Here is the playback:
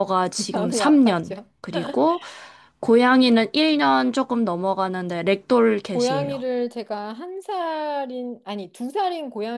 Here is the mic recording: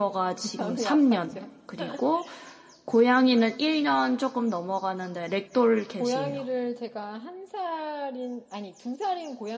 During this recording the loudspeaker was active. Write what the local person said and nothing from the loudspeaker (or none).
none